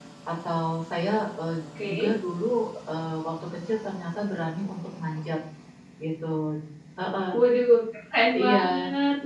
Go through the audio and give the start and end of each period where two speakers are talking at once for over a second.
none

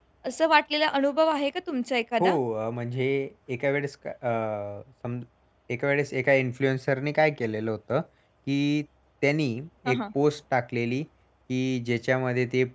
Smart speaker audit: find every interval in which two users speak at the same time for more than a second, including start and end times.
none

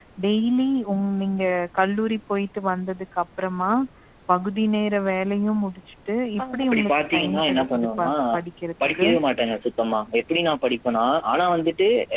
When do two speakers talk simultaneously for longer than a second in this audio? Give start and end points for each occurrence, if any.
6.4-8.1

